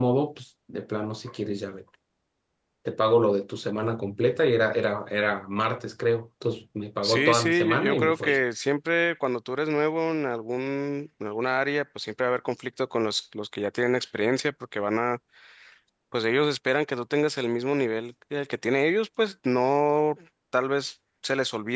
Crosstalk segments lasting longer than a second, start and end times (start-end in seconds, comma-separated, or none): 7.0-8.4